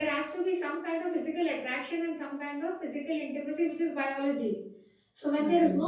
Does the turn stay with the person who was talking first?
Yes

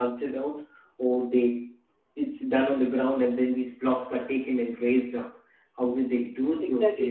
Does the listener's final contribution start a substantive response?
Yes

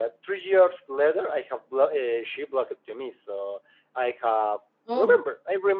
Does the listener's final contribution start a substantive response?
No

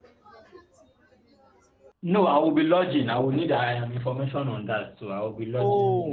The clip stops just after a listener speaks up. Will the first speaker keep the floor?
No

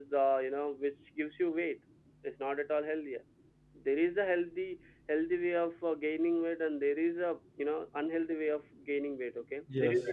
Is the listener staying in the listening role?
No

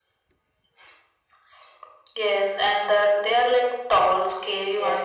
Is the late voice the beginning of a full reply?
Yes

